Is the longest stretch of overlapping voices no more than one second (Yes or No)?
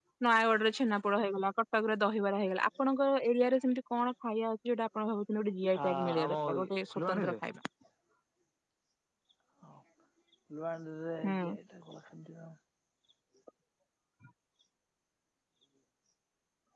No